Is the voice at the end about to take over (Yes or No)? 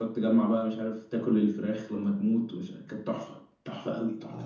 Yes